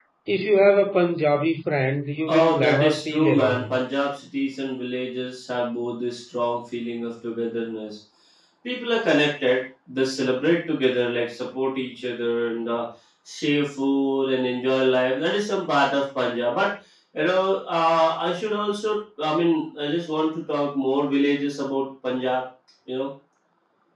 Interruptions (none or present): present